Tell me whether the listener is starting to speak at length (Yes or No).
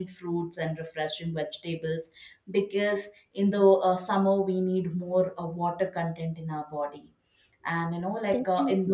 No